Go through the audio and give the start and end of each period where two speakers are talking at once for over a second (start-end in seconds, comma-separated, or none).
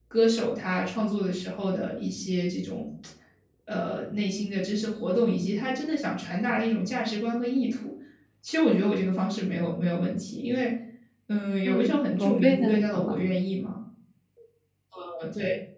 11.7-13.2